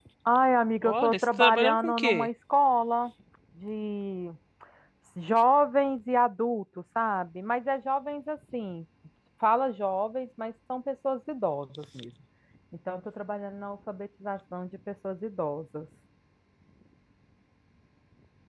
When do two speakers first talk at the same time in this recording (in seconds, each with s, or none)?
0.8 s